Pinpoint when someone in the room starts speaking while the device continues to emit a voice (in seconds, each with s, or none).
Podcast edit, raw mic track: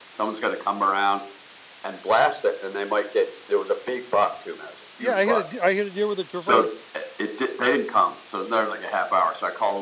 5.0 s